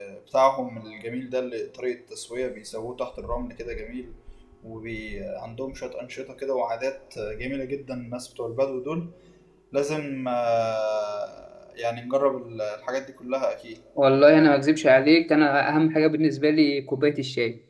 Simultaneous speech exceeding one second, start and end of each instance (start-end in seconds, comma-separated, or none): none